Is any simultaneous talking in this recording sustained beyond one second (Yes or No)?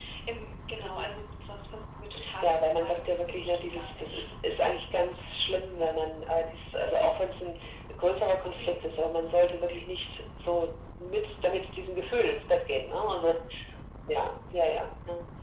Yes